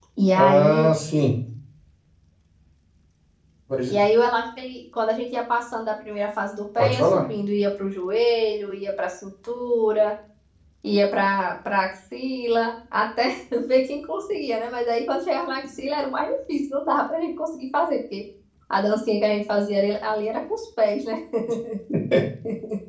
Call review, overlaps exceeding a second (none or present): none